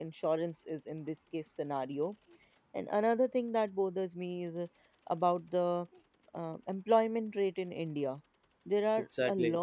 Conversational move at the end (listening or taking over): listening